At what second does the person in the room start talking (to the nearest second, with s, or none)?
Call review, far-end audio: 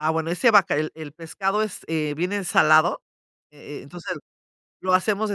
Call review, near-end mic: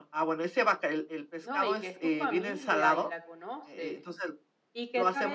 1 s